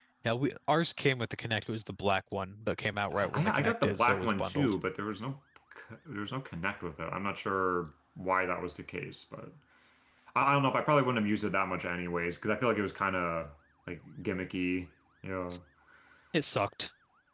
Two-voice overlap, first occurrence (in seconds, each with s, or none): 3.1 s